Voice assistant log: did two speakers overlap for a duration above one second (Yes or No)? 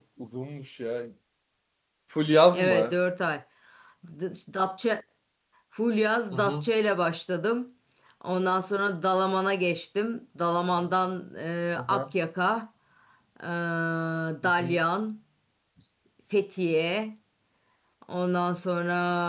No